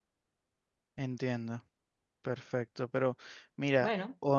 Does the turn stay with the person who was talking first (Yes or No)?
Yes